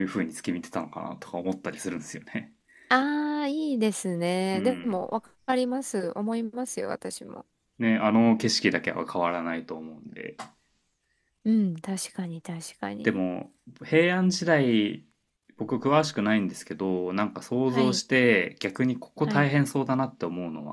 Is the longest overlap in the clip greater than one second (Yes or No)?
No